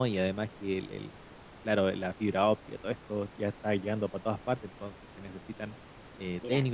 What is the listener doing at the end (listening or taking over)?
listening